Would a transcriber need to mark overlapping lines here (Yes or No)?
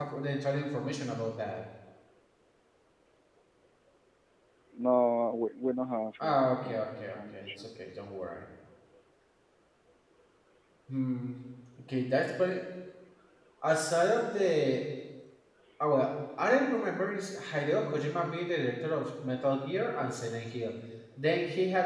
Yes